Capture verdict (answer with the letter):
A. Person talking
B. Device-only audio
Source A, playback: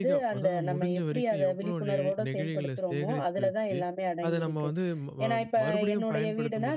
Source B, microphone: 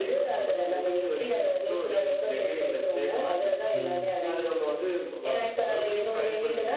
A